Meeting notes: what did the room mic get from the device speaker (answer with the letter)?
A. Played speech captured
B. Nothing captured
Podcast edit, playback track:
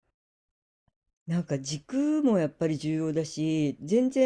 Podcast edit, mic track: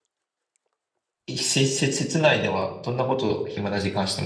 B